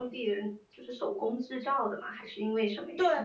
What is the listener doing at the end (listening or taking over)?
taking over